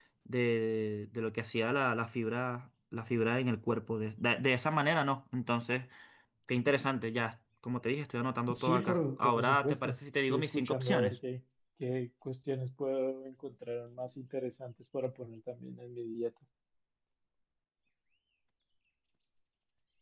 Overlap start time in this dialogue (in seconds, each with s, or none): 8.5 s